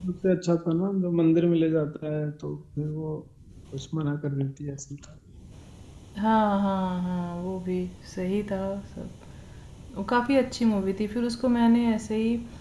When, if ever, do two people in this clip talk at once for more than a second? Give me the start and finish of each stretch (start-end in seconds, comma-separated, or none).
none